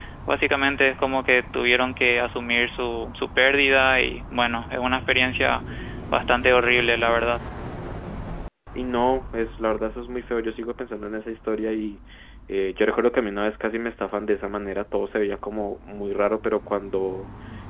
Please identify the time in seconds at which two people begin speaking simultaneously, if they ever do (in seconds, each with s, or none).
none